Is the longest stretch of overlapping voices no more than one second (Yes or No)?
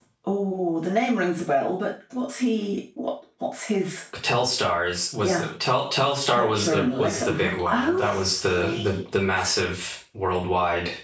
No